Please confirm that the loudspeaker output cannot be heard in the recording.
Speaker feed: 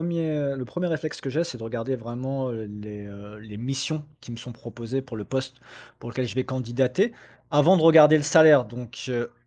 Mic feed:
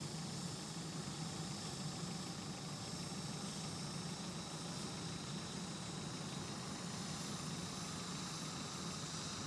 Yes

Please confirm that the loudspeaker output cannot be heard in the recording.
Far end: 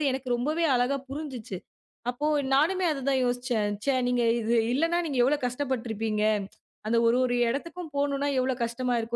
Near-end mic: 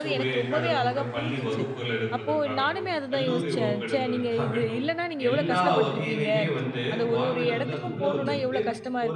No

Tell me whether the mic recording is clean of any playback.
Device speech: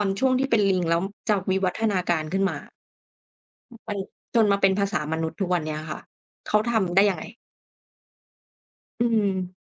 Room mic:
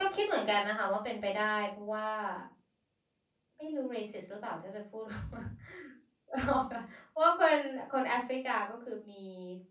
Yes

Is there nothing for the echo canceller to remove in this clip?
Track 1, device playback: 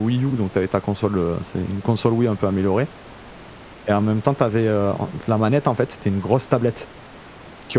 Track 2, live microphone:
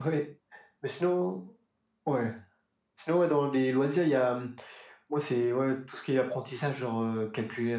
Yes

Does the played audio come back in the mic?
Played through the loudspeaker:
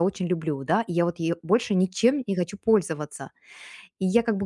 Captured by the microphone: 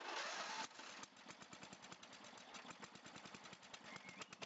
No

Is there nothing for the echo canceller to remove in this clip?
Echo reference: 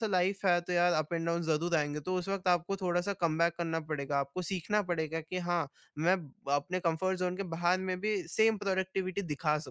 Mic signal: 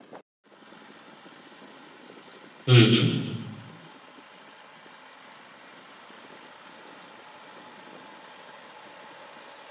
Yes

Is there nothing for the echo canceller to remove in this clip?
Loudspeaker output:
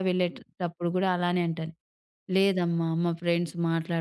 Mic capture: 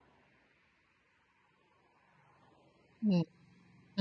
Yes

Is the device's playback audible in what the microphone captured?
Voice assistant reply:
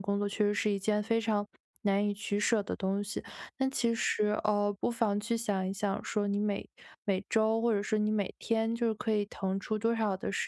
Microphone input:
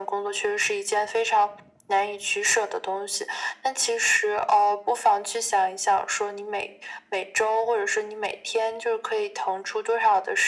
Yes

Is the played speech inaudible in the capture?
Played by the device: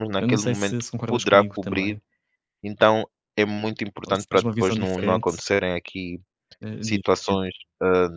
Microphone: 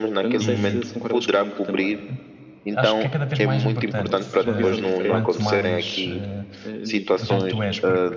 No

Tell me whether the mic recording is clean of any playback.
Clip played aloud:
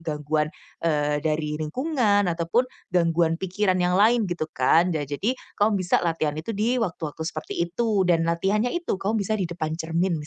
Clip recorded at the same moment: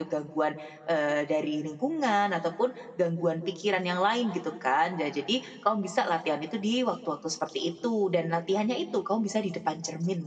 No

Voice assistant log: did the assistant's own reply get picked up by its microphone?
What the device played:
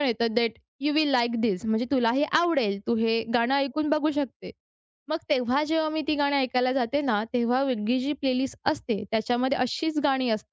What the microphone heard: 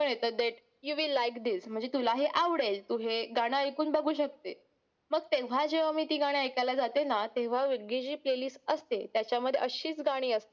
Yes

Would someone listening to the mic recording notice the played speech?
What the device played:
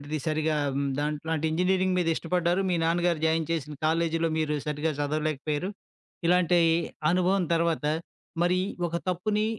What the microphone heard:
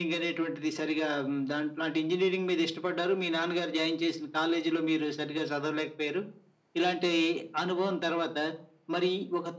Yes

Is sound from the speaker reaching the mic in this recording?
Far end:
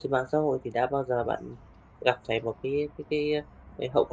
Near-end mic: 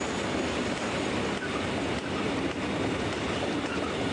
No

